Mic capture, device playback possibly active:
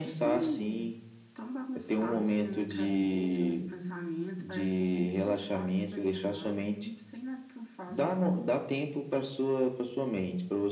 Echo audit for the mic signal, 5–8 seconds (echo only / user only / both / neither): echo only